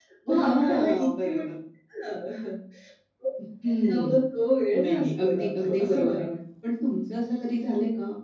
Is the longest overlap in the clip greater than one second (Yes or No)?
Yes